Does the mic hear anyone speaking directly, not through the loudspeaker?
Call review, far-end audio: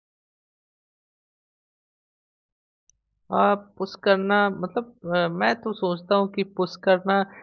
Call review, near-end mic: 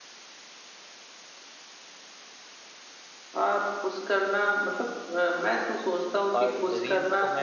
Yes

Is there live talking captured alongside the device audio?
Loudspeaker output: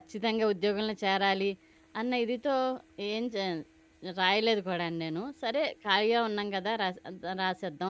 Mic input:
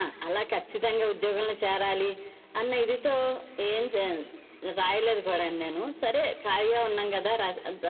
No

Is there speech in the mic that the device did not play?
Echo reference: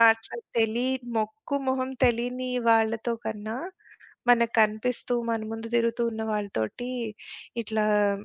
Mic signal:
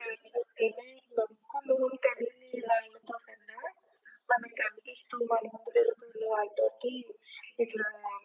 No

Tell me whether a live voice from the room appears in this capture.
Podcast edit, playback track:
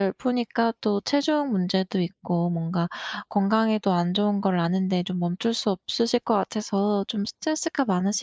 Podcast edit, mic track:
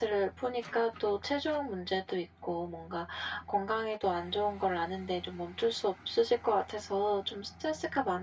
No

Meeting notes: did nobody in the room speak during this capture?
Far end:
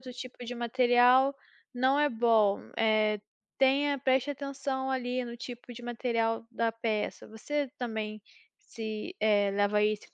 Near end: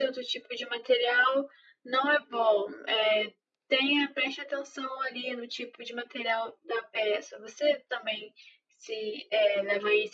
Yes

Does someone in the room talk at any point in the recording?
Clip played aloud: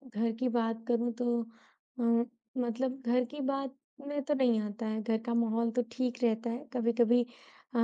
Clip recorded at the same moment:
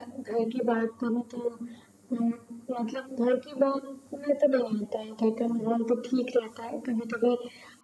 No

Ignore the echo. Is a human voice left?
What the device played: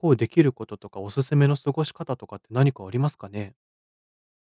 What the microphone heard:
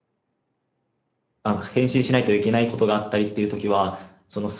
Yes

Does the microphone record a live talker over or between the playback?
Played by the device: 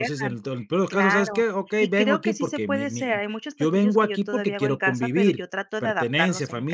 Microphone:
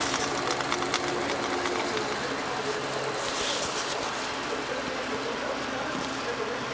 No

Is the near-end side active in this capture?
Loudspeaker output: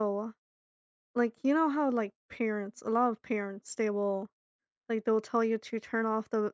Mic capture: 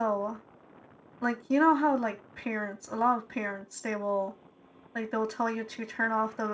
No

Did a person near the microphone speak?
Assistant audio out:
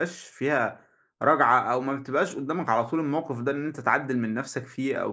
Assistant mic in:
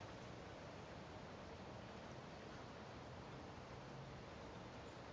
No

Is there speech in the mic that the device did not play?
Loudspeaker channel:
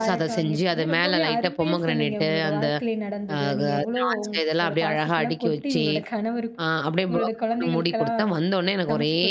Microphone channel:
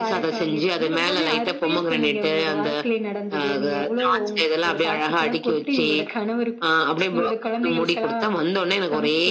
No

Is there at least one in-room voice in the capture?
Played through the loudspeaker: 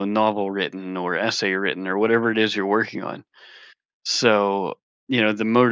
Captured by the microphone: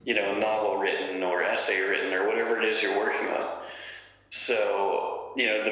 No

